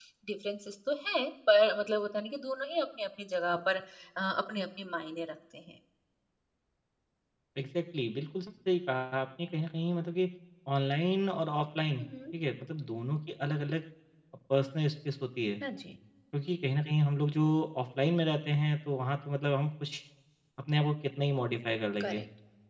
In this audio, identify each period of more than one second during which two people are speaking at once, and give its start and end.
none

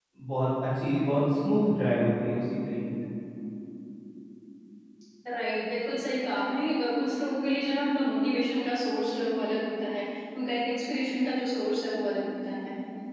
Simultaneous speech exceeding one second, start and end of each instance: none

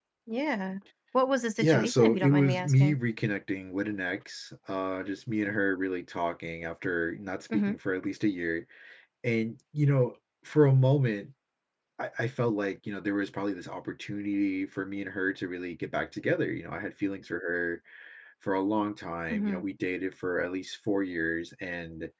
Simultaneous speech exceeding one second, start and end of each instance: 1.6-3.0

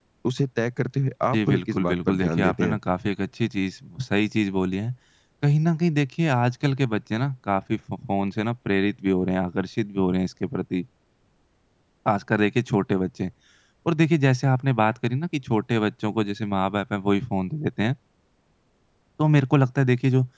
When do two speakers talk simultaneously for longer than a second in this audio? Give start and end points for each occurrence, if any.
1.3-2.8

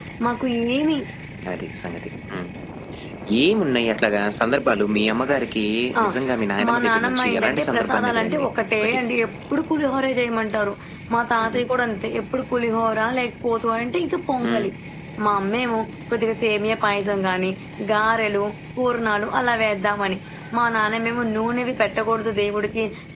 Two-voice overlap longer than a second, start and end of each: 6.7-9.0

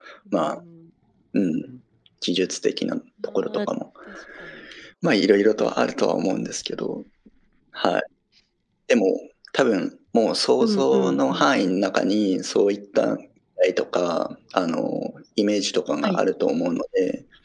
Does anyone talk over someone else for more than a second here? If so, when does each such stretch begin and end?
10.6-11.8

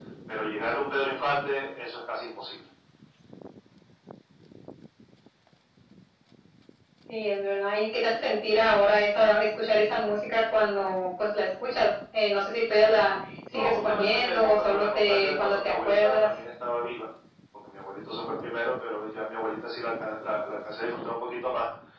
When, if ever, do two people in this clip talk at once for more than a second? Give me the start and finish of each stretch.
13.5-16.3

